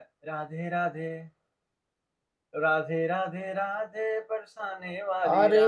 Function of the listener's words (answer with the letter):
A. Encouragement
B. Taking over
B